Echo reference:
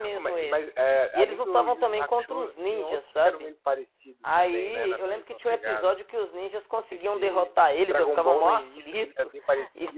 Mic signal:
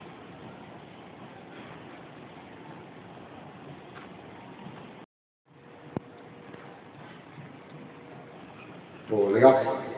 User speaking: Yes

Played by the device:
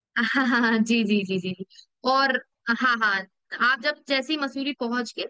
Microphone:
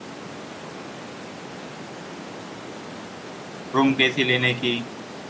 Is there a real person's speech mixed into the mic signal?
Yes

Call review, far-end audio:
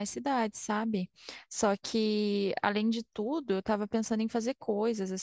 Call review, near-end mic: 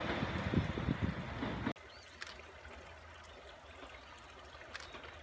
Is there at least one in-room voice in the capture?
No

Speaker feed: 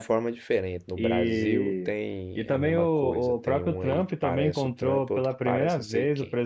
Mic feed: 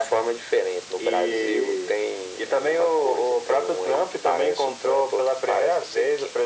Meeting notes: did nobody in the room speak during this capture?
Yes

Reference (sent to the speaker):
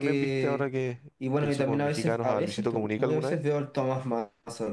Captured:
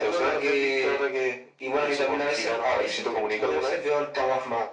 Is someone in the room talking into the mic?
No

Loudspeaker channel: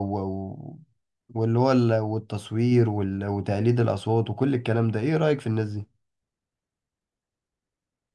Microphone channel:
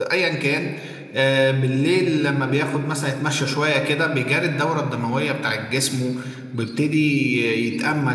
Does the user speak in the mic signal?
Yes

